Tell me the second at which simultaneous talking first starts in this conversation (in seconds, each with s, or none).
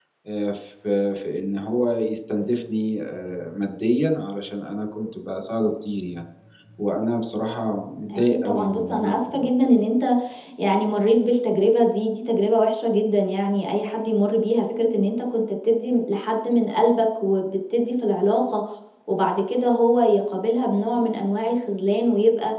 8.1 s